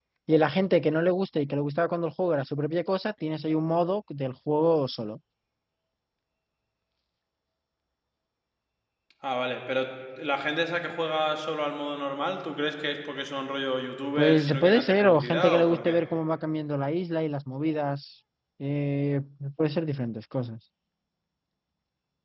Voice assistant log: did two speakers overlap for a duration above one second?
Yes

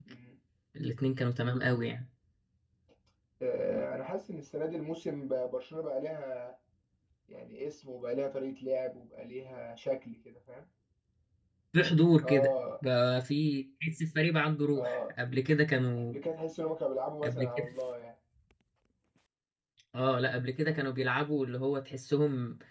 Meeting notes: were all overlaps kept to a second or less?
Yes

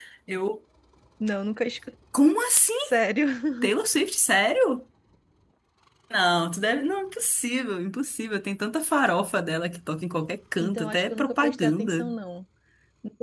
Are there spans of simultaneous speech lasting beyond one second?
Yes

